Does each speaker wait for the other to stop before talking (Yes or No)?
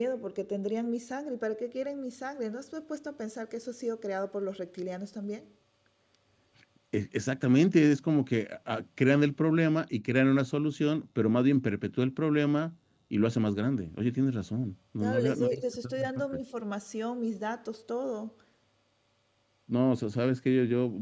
No